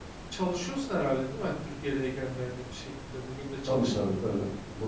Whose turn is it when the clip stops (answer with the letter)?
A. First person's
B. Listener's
B